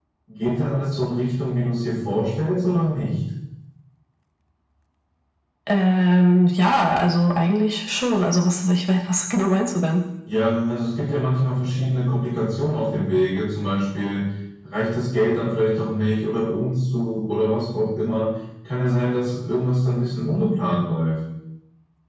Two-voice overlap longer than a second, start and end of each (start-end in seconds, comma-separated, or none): none